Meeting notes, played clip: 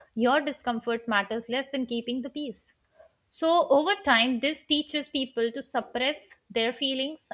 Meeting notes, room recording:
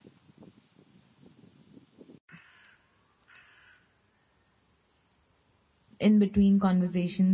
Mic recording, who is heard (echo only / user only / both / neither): user only